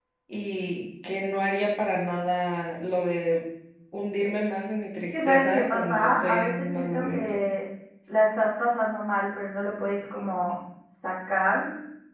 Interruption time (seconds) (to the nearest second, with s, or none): 5 s